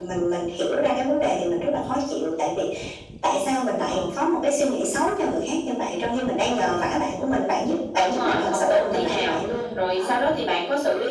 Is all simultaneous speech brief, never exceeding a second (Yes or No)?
No